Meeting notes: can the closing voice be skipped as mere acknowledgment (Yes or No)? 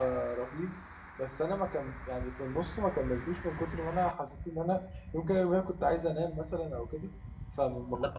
No